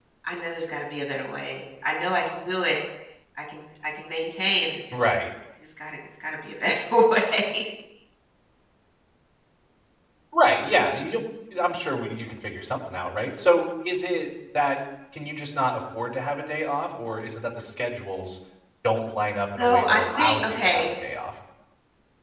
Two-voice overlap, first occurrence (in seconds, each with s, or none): 19.6 s